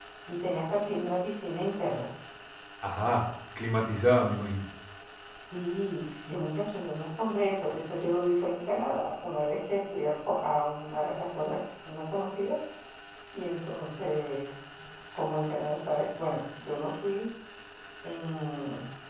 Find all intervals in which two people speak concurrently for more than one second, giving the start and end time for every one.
none

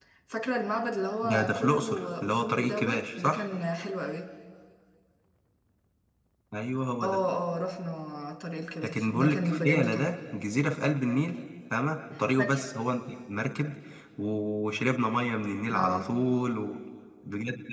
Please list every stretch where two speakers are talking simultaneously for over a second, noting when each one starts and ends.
1.2-3.4, 8.8-10.0

